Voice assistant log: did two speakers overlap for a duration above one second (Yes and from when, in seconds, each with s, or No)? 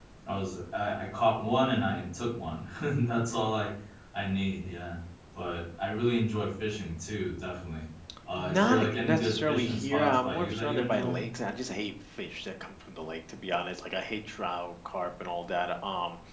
Yes, from 8.4 s